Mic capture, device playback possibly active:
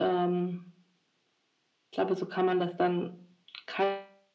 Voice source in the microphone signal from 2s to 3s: echo only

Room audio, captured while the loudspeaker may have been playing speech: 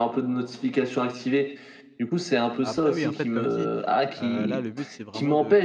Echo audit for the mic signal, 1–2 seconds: echo only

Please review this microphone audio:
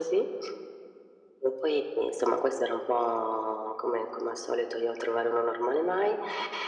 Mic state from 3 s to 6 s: echo only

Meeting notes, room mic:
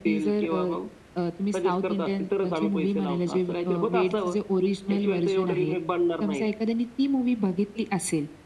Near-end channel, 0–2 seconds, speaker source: echo only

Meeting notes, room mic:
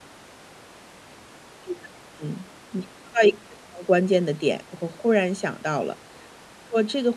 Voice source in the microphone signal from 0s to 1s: neither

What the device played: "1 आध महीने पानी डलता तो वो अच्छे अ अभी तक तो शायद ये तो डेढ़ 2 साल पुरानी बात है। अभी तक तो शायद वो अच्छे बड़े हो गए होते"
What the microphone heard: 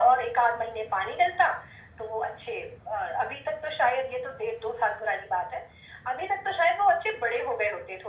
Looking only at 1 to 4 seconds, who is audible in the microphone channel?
echo only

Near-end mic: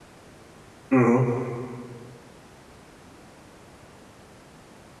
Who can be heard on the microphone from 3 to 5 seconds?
neither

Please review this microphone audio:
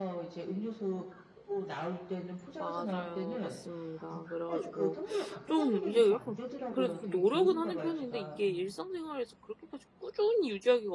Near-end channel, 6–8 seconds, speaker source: both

